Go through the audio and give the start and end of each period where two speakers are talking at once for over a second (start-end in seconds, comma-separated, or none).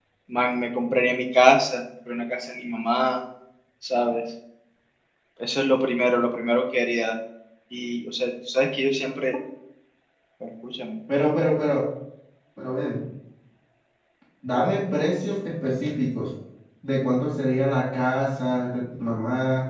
none